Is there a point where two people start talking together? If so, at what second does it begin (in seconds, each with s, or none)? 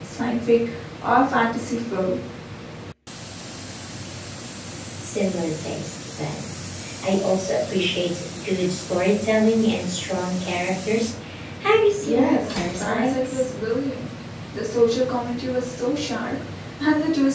12.0 s